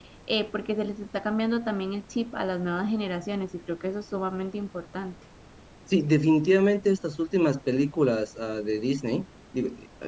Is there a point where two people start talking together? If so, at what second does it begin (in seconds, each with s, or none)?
none